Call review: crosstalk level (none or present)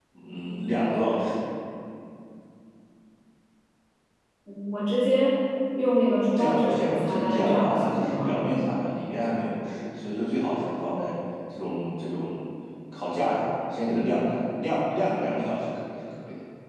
present